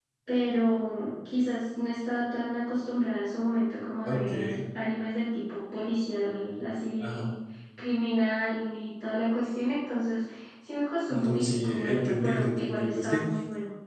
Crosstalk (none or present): present